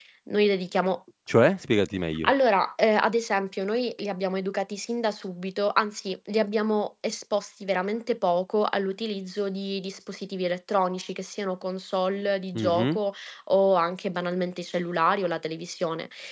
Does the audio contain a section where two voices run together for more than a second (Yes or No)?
No